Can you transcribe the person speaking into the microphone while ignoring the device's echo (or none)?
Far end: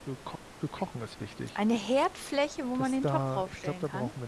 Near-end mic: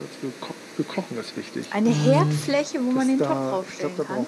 mh,